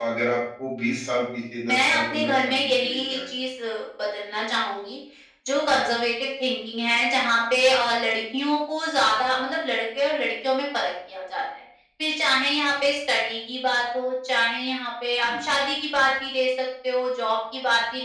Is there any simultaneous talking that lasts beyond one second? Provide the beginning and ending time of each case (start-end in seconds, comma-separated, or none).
1.6-3.3